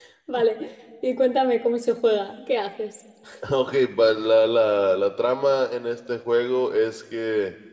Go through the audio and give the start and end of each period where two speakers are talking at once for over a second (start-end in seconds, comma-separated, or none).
none